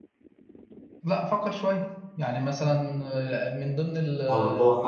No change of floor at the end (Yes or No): No